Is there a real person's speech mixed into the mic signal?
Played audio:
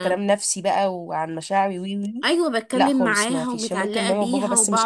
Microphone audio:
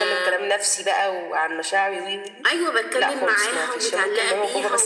No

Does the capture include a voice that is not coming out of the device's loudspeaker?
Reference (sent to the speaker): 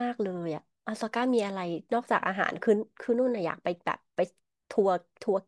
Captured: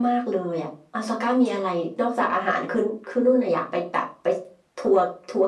No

